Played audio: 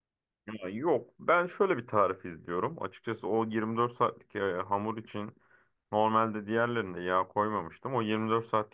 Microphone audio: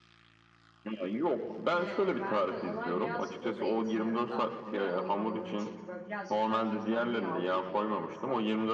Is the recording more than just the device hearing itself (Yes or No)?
Yes